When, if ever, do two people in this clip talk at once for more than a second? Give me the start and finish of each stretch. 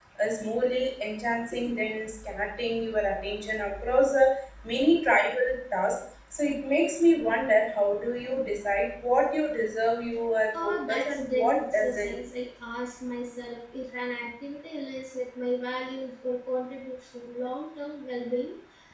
10.6-12.1

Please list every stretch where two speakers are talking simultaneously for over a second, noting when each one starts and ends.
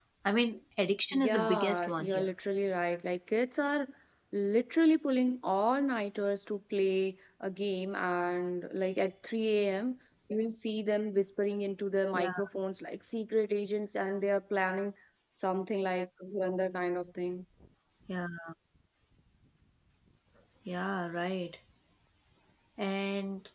1.1-2.3

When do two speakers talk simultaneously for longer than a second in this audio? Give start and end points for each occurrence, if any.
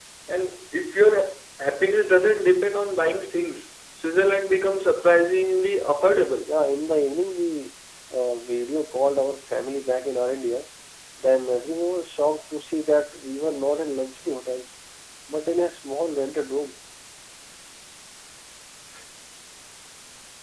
none

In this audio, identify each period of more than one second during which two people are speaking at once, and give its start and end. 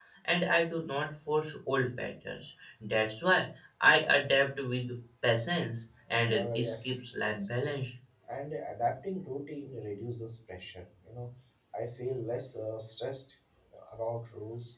6.3-7.7

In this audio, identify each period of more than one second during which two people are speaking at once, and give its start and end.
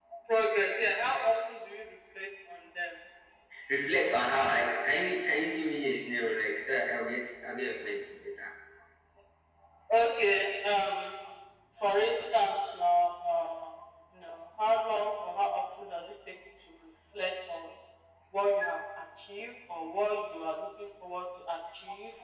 none

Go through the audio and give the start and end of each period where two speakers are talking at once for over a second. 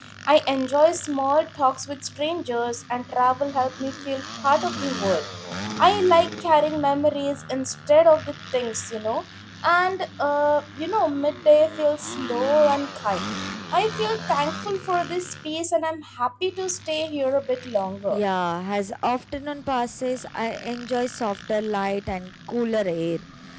none

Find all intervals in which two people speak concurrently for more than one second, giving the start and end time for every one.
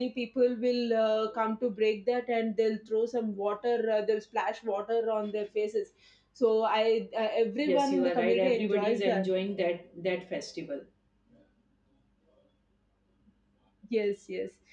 7.7-9.2

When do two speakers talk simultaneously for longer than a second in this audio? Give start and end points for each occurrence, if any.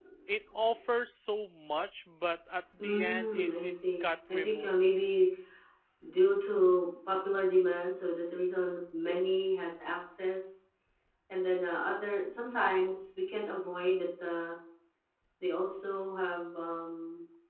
2.8-4.7

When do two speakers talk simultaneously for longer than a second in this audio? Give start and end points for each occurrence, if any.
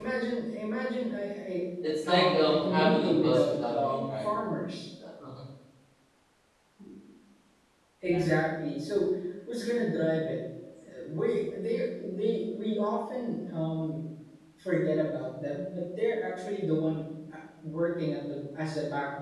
2.1-4.3

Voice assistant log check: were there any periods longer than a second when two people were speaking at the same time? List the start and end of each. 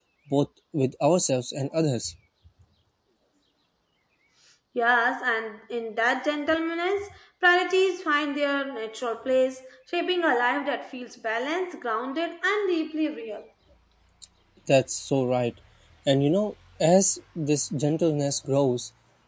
none

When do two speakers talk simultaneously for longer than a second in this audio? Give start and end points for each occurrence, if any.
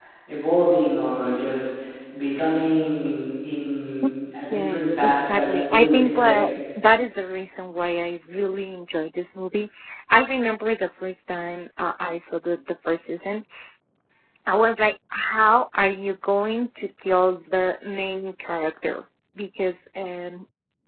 4.5-6.4

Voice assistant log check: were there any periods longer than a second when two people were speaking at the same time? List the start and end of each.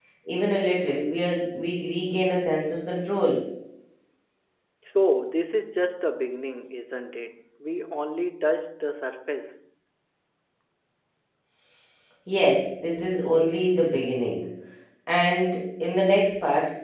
none

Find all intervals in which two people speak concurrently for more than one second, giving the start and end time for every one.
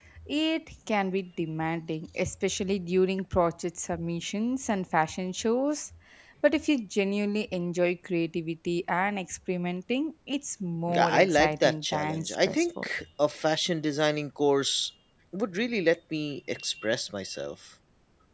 10.9-12.9

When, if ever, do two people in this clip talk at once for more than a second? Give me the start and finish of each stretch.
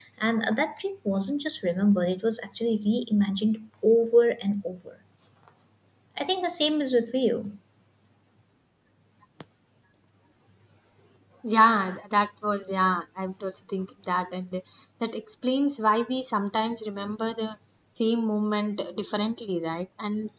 none

